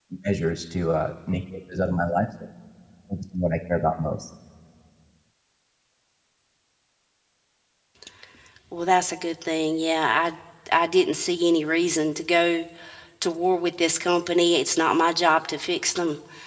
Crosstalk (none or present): none